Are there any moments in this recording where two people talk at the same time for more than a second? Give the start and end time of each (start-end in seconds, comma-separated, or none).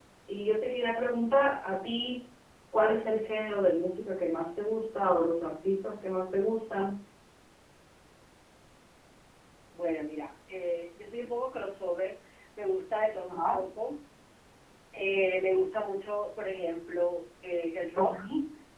none